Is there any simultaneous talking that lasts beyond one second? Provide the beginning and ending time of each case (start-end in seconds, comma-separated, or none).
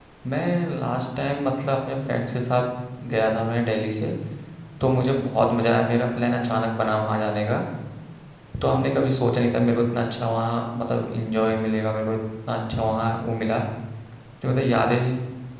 none